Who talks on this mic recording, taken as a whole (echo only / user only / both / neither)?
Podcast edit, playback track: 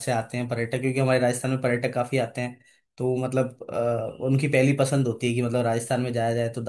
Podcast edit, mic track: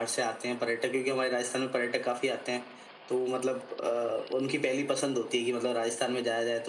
echo only